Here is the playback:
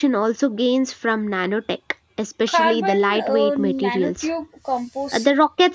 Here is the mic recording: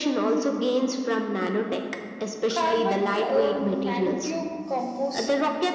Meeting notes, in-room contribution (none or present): none